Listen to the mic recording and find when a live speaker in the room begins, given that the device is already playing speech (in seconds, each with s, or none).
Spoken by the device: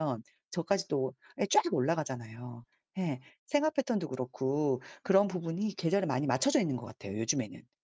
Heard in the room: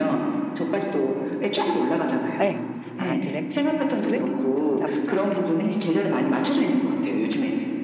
2.4 s